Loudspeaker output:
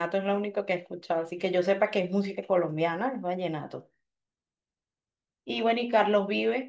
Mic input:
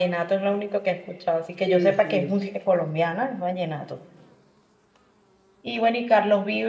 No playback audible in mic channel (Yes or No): No